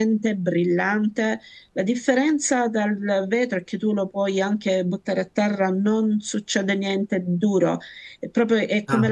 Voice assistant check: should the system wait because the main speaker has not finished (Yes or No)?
Yes